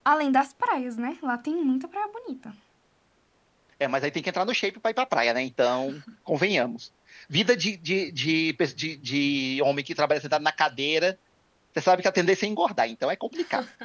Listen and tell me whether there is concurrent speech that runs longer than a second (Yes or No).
No